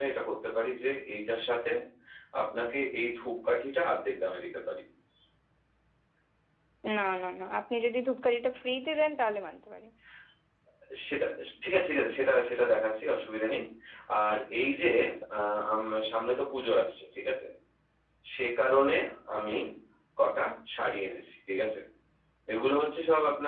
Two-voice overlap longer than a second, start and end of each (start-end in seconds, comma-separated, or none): none